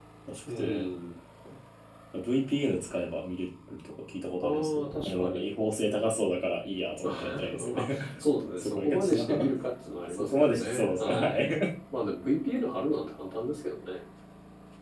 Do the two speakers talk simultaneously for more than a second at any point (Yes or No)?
Yes